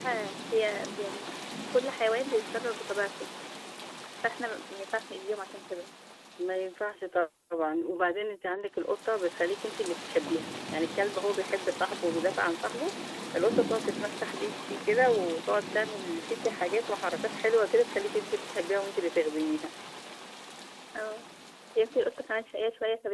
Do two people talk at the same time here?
No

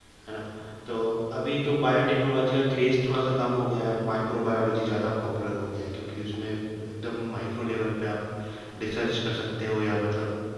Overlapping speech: No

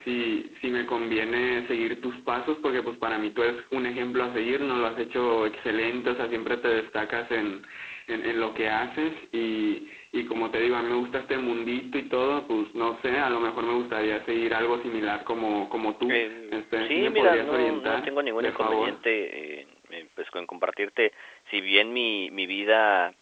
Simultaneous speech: Yes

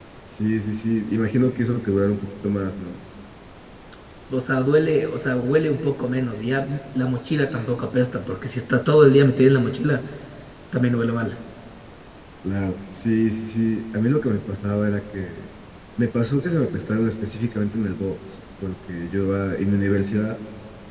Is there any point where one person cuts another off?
No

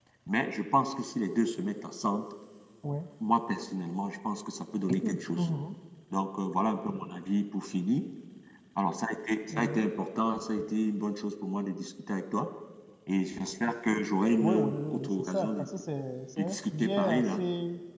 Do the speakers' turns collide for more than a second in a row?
Yes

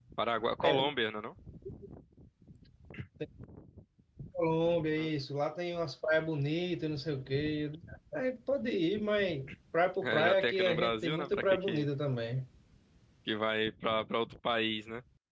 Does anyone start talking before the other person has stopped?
Yes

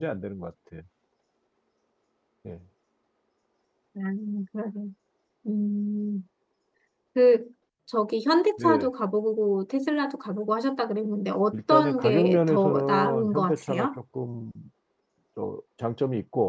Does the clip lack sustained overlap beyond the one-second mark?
No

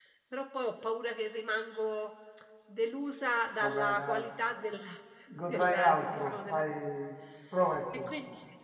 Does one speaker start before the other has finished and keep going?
Yes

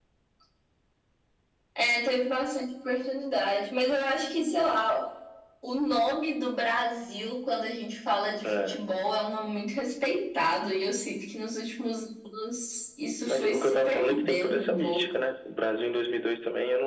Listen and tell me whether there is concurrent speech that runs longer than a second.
Yes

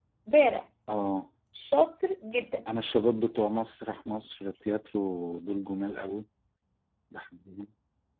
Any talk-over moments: No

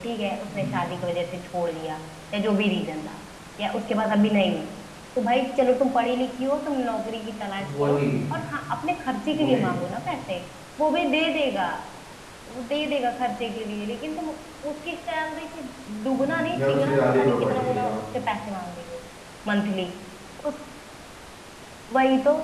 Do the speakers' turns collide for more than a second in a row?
Yes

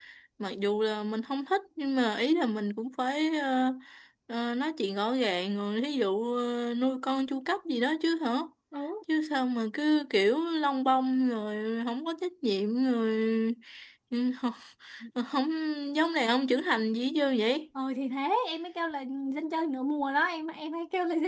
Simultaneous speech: No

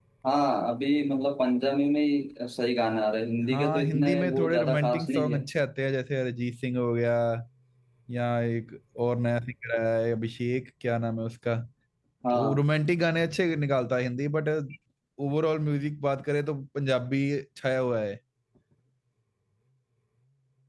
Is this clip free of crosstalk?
No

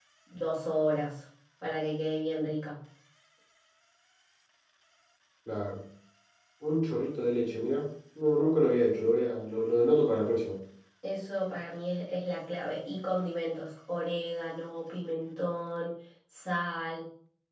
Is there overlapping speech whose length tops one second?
No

